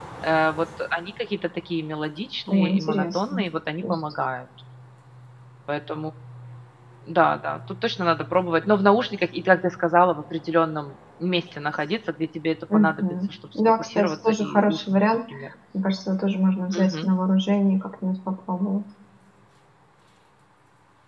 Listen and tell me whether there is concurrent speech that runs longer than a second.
Yes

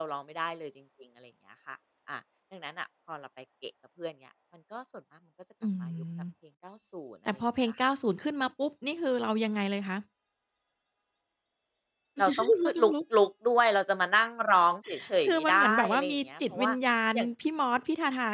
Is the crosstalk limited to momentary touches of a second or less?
No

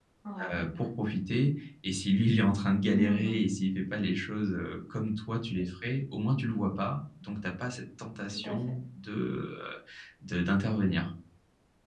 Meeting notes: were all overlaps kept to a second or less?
Yes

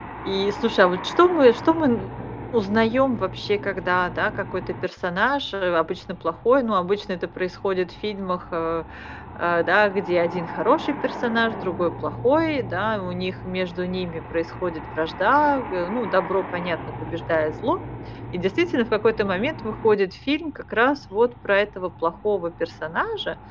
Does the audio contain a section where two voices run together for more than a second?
No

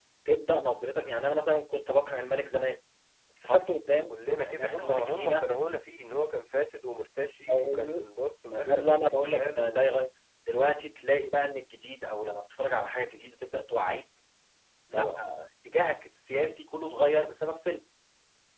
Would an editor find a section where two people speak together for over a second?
Yes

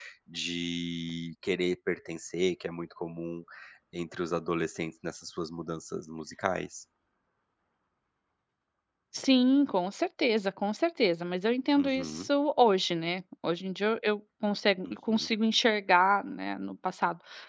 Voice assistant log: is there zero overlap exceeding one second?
Yes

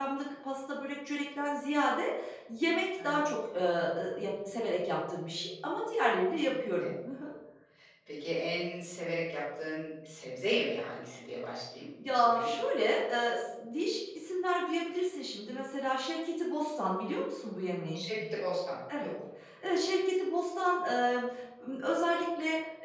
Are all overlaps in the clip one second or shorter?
Yes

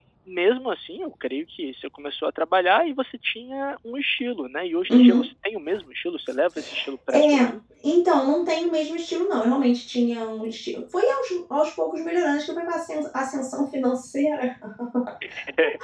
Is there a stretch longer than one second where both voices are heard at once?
No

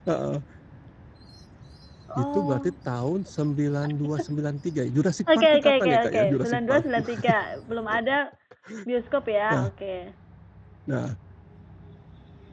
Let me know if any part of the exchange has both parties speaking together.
Yes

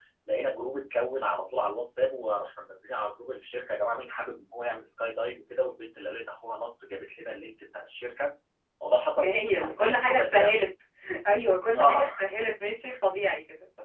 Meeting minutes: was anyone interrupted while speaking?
Yes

